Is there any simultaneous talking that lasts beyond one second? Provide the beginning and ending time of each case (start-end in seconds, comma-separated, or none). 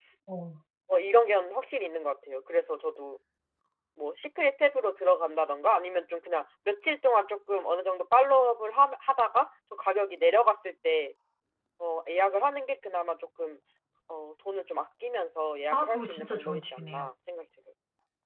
15.7-17.1